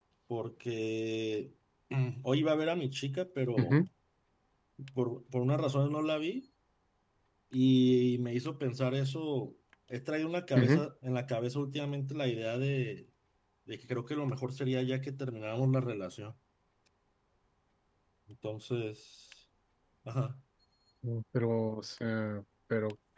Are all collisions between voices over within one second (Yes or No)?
Yes